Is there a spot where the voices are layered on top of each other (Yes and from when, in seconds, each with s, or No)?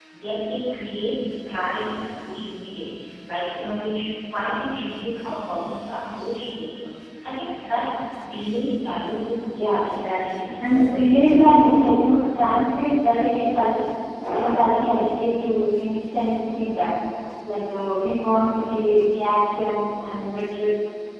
Yes, from 9.8 s